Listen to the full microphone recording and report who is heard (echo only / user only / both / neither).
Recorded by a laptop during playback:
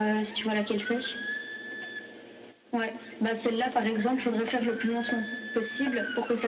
echo only